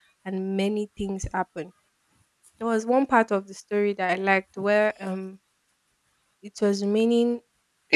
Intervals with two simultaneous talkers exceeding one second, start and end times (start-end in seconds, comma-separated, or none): none